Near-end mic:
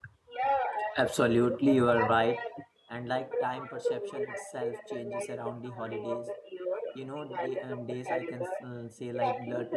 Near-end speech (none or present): present